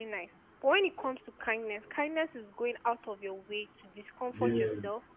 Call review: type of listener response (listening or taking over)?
listening